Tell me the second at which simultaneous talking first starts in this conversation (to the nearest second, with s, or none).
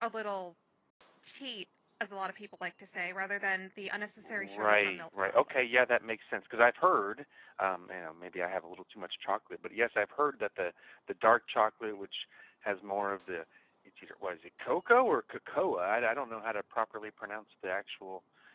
4 s